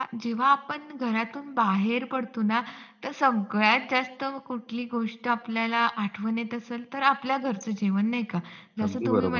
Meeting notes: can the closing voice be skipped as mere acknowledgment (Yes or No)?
Yes